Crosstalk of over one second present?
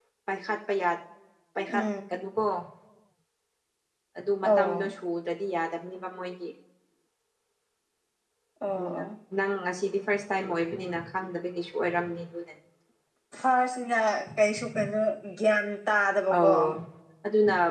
No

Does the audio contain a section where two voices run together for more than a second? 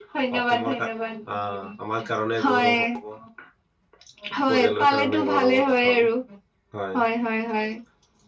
Yes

